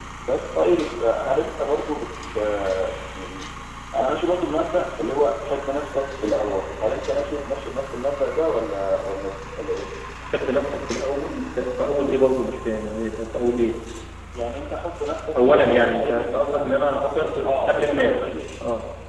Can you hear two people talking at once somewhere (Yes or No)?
Yes